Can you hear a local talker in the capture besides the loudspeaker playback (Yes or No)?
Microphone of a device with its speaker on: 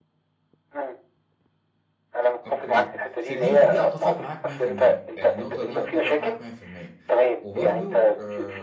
Yes